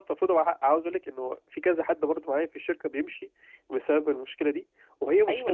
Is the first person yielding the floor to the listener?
Yes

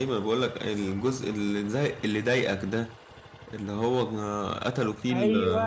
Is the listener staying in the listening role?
No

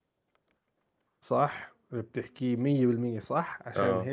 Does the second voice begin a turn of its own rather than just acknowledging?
No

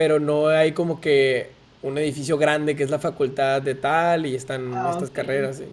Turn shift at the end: No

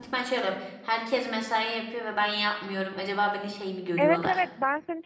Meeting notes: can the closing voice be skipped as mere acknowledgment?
No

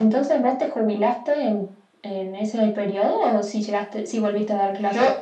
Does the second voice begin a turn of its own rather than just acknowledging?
Yes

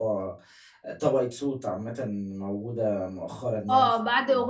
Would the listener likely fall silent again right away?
No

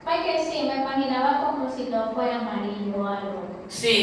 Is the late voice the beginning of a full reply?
Yes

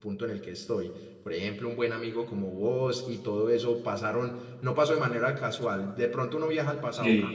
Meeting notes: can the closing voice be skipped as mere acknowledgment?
Yes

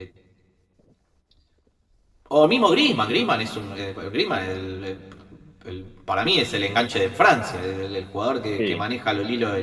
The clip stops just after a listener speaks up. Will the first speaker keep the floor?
Yes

